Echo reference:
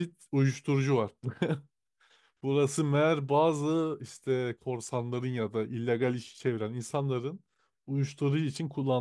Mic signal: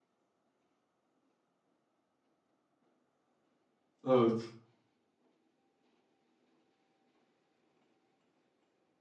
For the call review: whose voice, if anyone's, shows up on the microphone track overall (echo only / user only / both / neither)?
user only